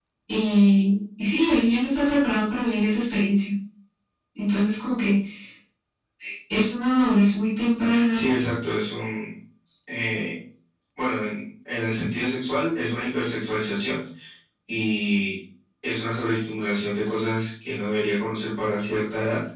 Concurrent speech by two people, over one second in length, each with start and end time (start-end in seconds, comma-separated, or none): none